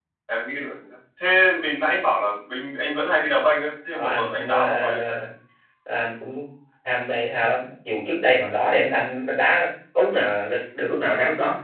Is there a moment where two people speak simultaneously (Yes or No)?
Yes